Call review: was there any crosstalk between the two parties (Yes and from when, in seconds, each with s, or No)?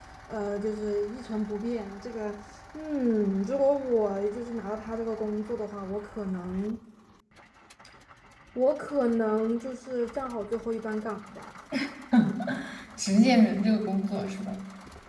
No